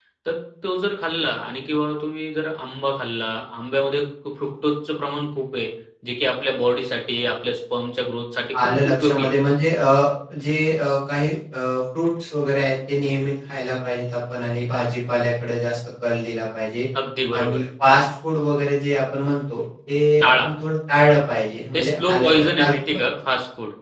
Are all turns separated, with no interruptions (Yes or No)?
No